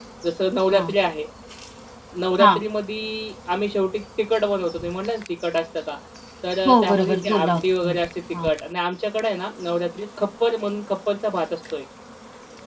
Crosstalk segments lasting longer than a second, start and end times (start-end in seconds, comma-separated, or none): 6.7-8.0